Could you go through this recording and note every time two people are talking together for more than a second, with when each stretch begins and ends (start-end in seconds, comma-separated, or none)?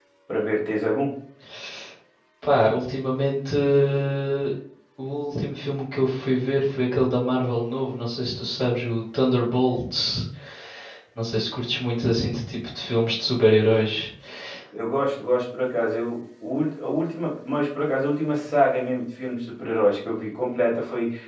none